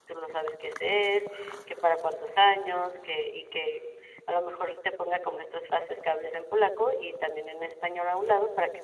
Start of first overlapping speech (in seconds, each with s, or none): none